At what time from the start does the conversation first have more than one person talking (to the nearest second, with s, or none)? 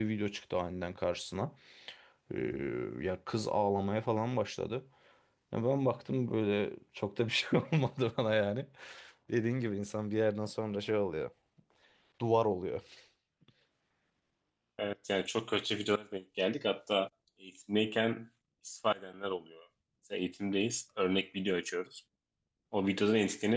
none